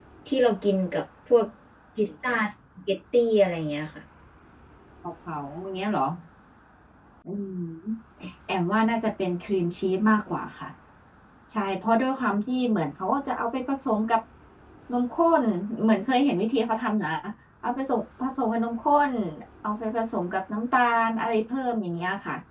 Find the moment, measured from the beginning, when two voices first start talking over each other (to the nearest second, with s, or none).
none